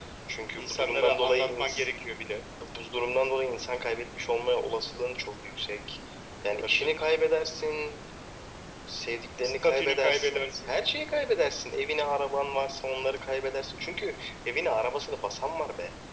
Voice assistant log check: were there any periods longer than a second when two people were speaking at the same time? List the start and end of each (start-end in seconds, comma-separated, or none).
0.6-1.9, 9.4-10.7